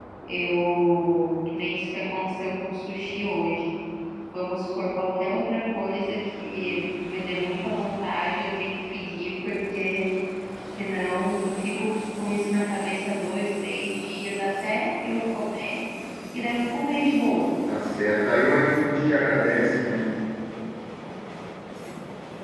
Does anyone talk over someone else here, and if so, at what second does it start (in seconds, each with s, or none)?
none